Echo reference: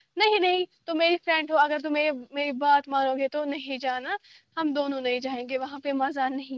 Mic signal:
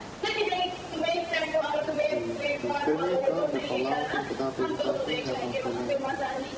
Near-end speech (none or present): present